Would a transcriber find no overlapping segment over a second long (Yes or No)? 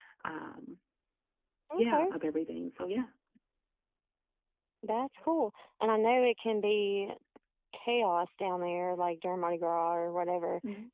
Yes